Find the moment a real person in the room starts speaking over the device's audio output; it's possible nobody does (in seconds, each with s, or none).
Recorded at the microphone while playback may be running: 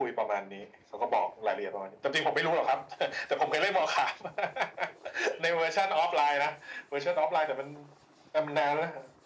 none